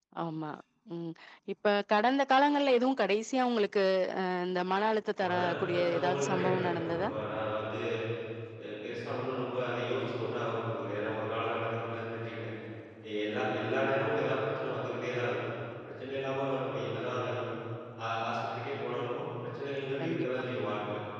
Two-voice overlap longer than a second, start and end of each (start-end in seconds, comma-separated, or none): 5.2-7.1